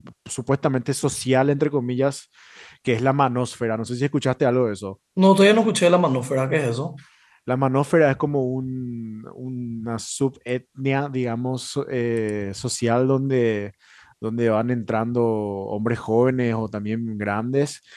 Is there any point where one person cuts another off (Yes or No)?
No